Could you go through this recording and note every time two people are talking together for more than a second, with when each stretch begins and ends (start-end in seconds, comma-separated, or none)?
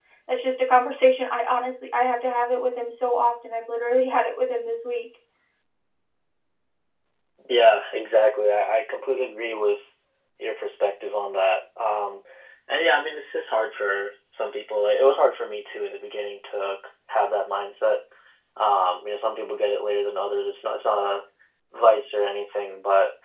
none